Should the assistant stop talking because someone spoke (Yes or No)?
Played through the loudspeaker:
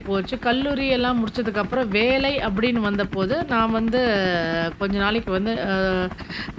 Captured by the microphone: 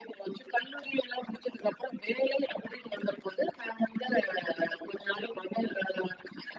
No